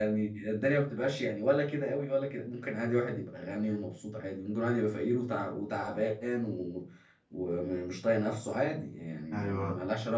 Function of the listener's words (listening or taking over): listening